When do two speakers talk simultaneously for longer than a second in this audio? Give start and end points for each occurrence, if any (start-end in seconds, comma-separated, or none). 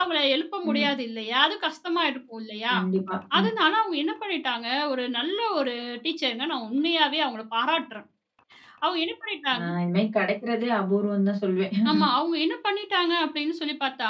none